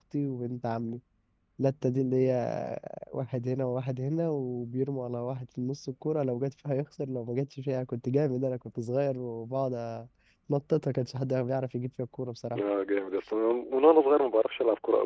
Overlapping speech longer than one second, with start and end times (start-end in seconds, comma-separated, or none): none